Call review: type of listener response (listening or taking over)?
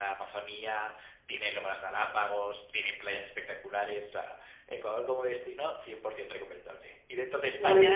listening